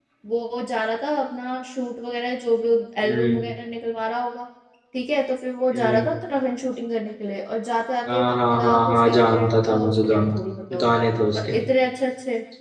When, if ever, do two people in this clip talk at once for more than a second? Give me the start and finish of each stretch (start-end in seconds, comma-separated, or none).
8.1-10.3